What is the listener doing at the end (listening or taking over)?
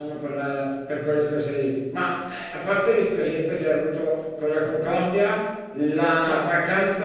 listening